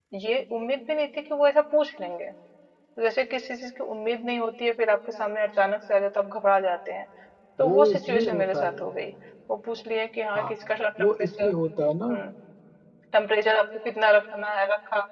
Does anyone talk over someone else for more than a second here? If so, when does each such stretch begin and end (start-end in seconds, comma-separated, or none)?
7.6-8.8